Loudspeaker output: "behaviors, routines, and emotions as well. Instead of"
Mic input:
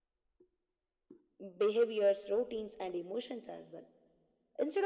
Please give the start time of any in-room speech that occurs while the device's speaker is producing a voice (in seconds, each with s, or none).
none